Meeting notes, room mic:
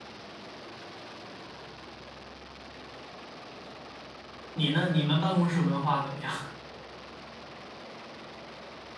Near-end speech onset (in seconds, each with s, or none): 4.5 s